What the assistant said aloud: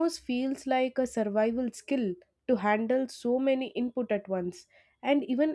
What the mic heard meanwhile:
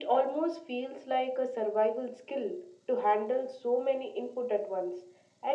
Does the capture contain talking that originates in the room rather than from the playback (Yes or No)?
No